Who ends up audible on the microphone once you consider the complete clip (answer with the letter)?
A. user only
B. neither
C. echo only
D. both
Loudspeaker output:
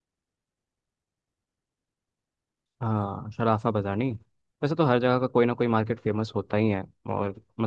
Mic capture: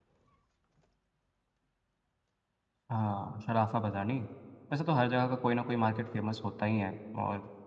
C